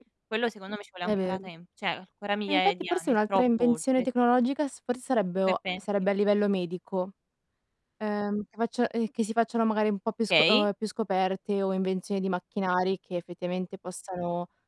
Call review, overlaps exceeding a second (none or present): present